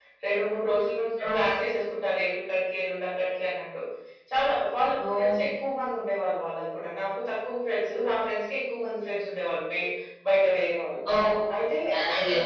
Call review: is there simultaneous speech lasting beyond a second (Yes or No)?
No